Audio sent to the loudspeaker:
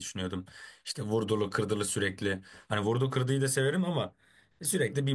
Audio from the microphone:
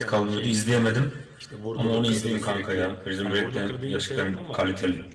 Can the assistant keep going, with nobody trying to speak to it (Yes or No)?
No